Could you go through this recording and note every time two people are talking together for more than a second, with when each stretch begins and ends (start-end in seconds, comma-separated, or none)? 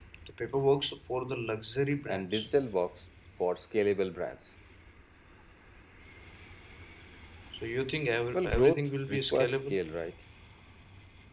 8.3-9.8